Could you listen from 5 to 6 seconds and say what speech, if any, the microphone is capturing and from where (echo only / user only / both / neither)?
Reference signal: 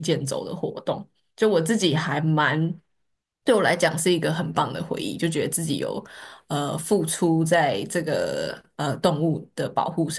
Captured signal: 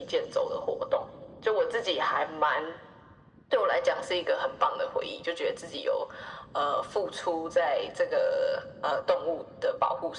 echo only